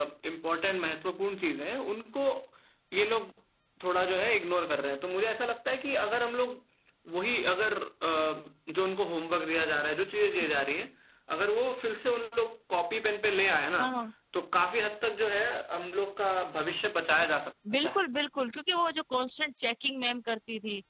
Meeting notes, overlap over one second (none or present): none